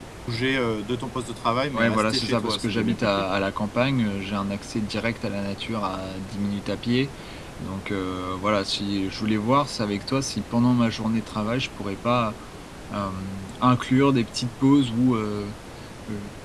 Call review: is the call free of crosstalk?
No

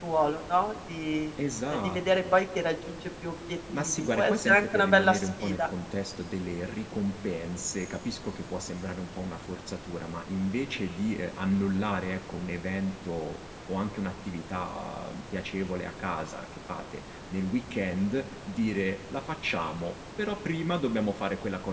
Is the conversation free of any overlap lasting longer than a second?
No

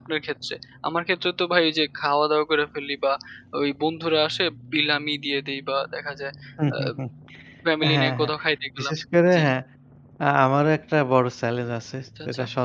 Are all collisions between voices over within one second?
Yes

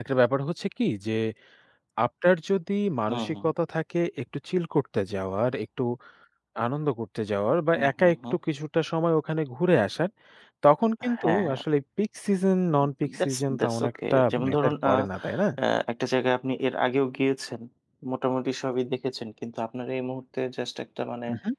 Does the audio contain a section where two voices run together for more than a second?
Yes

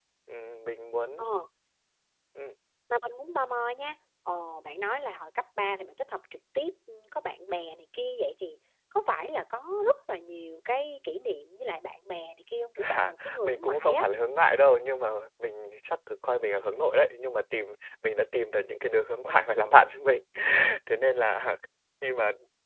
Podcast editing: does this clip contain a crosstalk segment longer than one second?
Yes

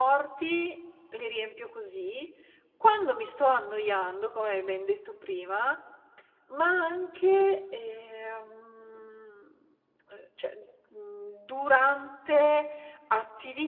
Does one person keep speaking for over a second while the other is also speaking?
No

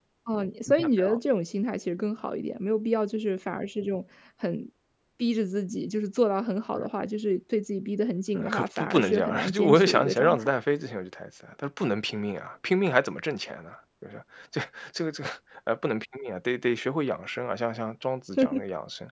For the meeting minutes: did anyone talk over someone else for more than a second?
Yes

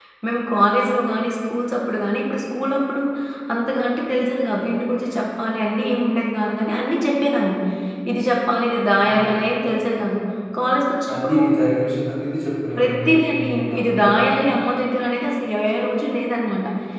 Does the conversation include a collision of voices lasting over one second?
Yes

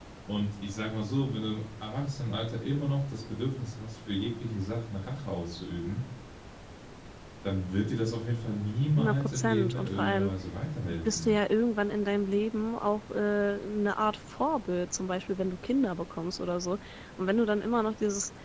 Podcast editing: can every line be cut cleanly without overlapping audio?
No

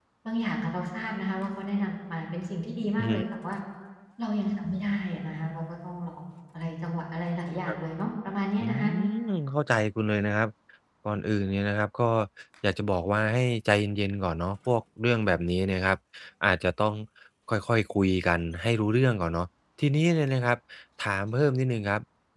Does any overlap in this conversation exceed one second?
No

